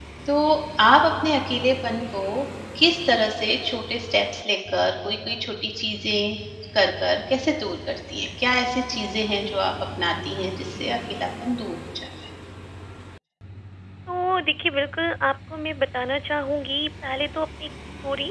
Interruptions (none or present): none